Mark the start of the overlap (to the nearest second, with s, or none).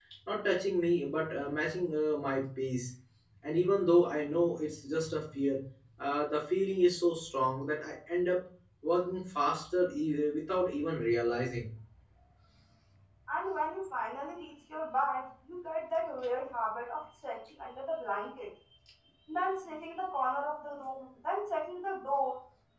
none